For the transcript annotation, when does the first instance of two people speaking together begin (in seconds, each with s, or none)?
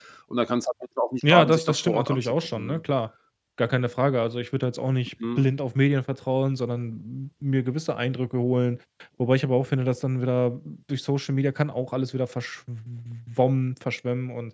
1.3 s